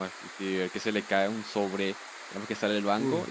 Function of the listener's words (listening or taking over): listening